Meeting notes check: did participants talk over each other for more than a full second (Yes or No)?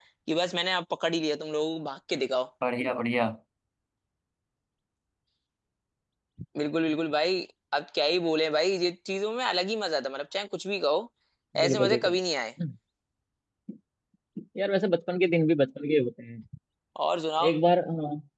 No